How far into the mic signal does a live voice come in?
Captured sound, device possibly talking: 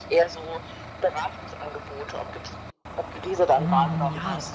3.5 s

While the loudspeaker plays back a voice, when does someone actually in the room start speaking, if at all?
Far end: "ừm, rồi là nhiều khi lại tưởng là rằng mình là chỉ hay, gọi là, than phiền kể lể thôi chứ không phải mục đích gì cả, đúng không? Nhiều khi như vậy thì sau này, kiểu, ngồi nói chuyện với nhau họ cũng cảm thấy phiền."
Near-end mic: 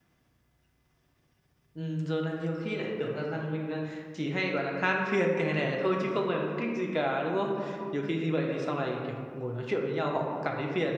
none

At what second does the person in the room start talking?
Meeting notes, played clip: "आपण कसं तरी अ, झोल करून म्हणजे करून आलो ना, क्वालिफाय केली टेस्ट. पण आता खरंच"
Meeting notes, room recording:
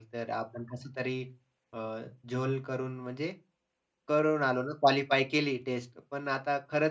none

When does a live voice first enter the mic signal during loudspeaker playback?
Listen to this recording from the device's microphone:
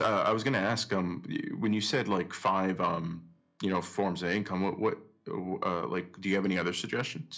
none

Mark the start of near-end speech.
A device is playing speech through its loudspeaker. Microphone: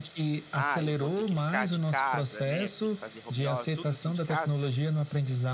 0.5 s

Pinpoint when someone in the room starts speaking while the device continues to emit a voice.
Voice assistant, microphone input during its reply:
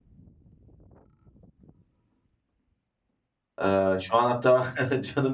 3.6 s

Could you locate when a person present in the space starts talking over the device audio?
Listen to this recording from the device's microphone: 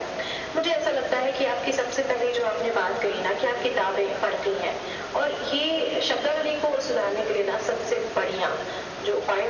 none

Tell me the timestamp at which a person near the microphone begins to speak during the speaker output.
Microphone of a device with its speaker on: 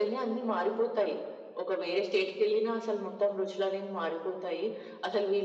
none

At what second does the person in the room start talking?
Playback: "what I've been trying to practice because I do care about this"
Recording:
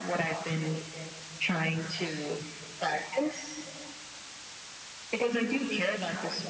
5.2 s

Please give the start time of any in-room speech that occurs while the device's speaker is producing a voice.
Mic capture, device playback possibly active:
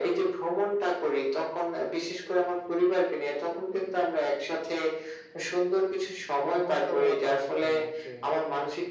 6.5 s

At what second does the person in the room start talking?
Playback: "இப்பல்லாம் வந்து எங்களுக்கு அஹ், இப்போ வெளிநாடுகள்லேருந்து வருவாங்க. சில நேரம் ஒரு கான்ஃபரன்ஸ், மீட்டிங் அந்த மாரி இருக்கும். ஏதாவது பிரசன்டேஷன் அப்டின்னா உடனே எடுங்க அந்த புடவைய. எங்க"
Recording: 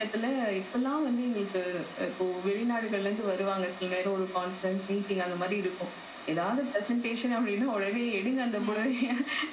8.6 s

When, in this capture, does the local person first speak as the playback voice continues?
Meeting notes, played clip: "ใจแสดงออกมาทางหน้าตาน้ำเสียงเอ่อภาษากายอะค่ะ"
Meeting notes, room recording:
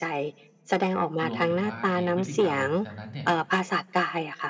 1.3 s

